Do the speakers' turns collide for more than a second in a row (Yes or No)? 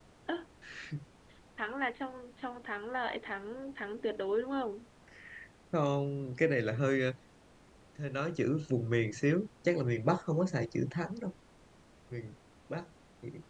No